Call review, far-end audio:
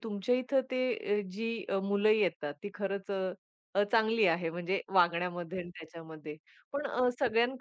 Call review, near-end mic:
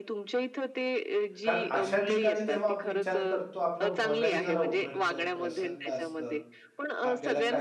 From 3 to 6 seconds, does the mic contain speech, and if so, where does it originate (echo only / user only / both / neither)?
both